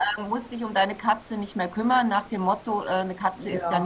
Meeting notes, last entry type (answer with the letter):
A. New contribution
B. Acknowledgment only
B